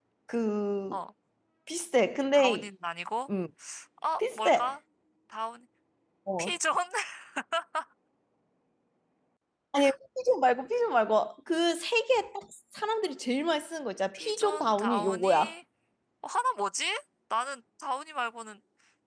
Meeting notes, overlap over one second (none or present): present